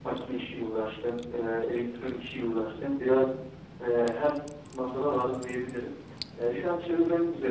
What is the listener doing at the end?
listening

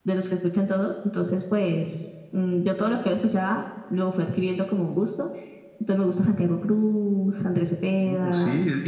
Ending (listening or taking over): taking over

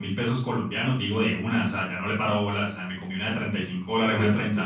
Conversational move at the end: taking over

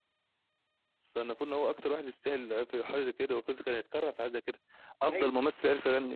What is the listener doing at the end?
listening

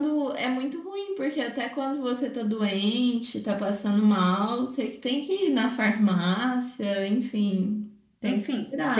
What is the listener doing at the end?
taking over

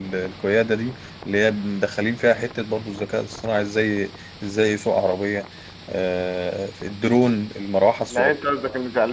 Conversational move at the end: taking over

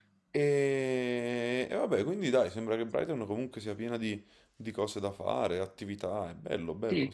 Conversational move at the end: taking over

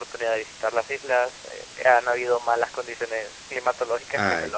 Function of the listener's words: taking over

